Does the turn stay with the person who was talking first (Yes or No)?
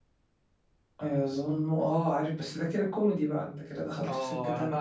No